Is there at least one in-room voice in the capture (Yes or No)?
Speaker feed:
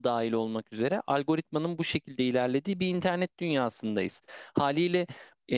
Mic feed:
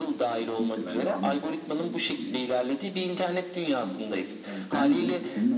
Yes